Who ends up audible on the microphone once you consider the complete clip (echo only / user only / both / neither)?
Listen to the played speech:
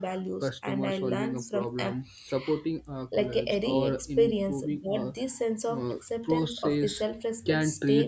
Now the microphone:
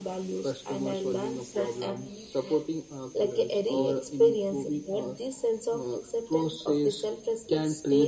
both